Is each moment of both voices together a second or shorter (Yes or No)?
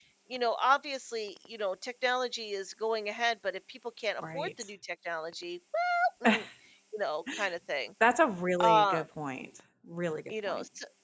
Yes